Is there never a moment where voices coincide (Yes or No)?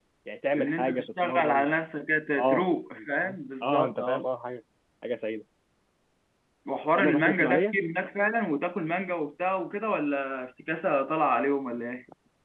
No